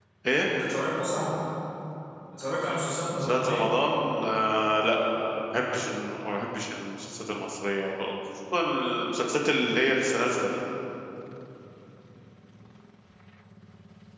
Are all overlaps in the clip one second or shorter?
Yes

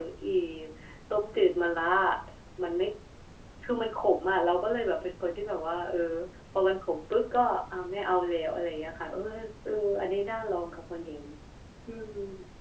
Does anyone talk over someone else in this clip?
No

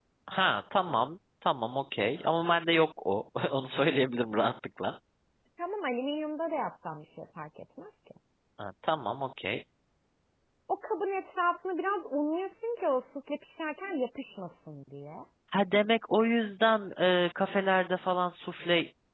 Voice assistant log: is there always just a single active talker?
Yes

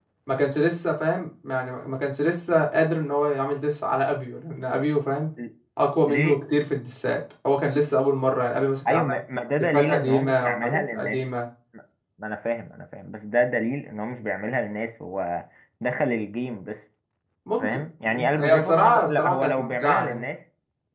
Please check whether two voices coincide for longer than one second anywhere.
Yes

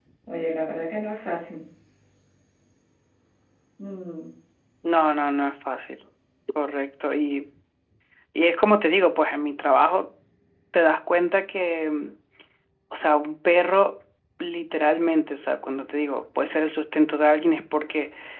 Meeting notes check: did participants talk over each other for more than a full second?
No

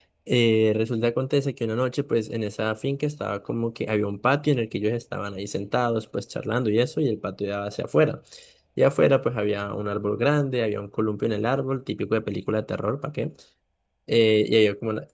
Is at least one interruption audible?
No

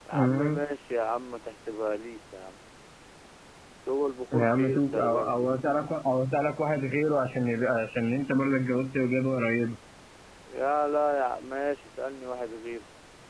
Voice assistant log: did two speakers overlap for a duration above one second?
Yes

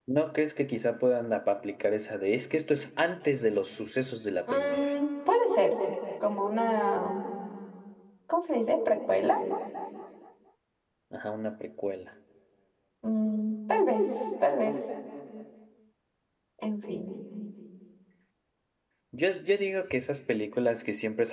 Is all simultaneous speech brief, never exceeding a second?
Yes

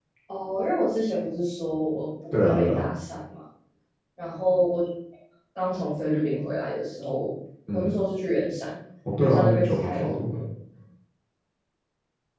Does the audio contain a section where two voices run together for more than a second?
Yes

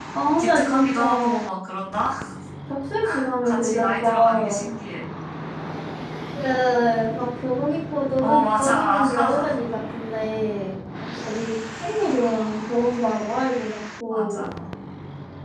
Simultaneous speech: Yes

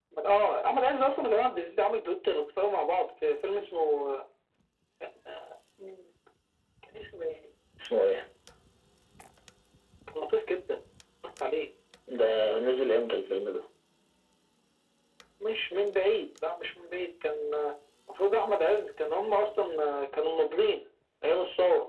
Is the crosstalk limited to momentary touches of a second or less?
Yes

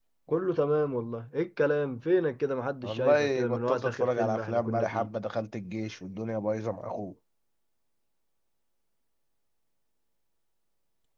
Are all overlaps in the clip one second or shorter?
No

